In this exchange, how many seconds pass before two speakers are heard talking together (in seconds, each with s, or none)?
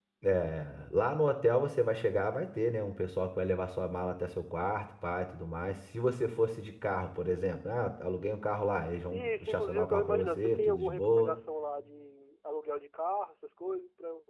9.1 s